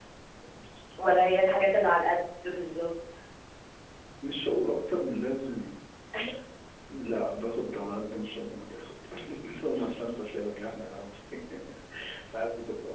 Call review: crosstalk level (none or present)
none